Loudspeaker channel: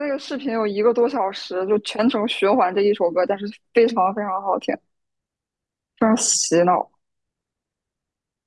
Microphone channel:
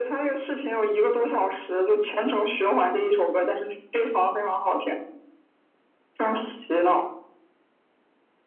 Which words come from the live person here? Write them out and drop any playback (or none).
none